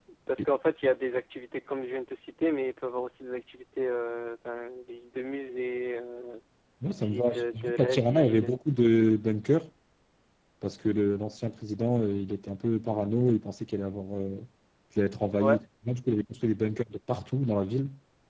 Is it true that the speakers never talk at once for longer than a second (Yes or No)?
No